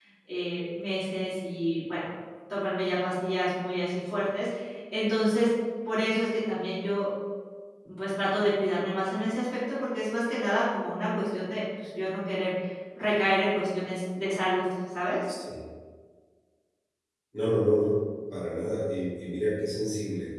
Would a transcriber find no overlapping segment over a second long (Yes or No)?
Yes